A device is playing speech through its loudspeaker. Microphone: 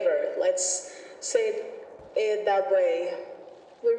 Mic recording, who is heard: echo only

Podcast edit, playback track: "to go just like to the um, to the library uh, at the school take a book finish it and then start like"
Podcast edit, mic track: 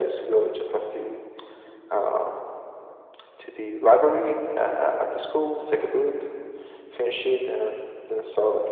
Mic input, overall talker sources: echo only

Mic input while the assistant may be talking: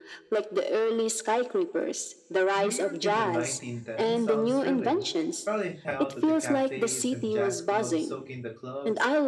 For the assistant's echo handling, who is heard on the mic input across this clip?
both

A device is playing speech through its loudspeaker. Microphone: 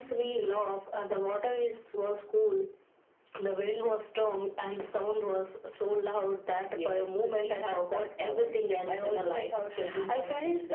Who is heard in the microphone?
echo only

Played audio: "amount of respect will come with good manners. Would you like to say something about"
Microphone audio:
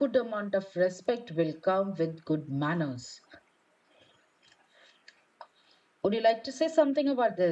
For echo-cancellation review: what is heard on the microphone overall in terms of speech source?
echo only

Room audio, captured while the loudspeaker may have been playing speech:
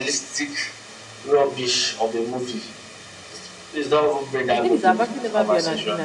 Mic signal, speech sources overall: both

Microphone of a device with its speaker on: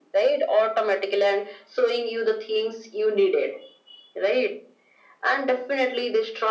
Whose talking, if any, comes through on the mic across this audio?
echo only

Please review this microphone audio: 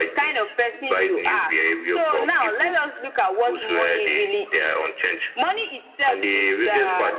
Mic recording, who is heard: echo only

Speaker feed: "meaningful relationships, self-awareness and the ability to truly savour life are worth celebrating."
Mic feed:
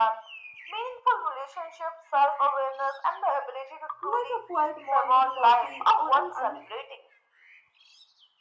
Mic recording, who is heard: both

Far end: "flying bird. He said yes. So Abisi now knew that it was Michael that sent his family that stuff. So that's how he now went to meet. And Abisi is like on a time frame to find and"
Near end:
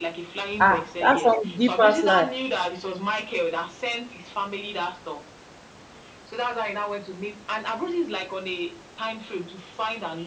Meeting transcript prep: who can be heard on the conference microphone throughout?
both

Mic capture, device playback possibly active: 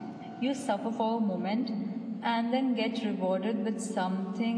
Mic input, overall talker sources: echo only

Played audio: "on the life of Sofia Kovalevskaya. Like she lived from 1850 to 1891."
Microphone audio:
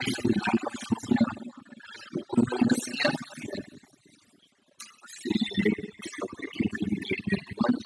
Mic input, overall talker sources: echo only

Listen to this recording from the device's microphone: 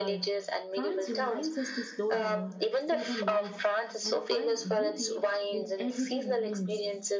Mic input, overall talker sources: both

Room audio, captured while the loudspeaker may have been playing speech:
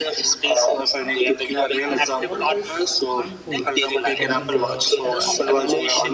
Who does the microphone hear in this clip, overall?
both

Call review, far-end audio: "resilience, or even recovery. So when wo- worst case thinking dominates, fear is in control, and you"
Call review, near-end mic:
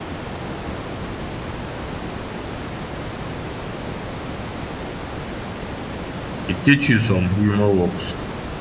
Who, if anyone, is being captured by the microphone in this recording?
user only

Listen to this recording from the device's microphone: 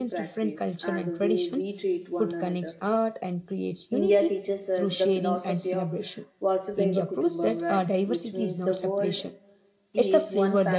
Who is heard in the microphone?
both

